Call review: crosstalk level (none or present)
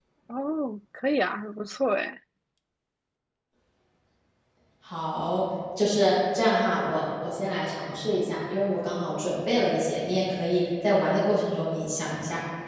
none